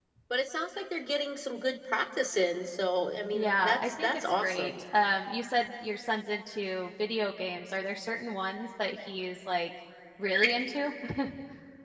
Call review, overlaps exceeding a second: present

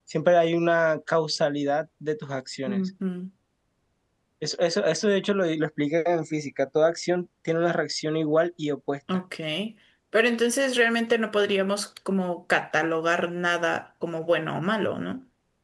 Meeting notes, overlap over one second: none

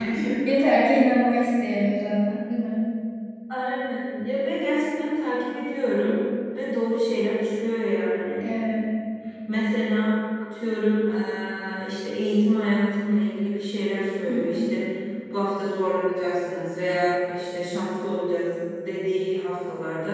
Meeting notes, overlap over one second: none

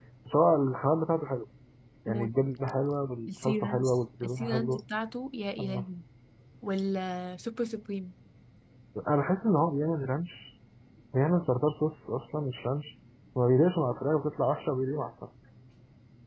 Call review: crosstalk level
present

